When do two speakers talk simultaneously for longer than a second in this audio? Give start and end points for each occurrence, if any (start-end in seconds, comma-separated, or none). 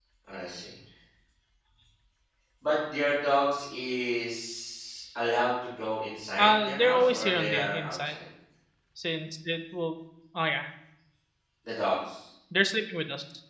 6.4-8.2